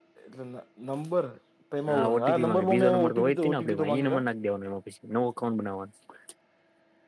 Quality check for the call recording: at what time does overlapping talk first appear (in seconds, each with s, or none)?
1.9 s